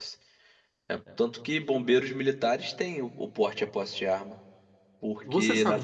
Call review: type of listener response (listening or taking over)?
taking over